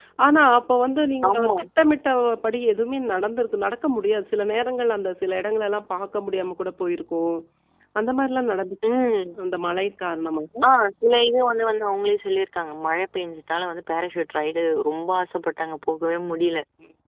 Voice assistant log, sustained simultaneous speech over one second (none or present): none